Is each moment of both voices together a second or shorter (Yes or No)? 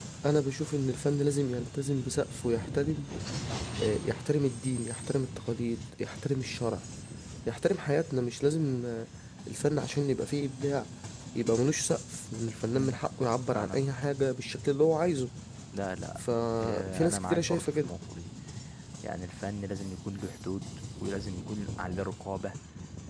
No